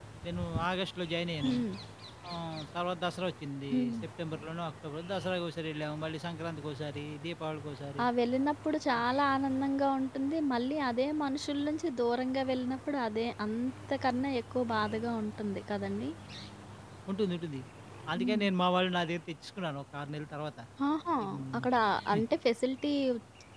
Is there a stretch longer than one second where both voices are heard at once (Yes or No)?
No